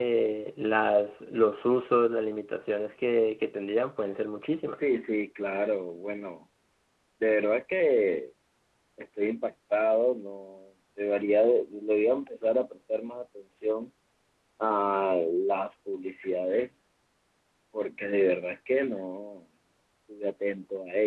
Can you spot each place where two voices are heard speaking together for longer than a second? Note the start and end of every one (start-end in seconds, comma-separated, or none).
none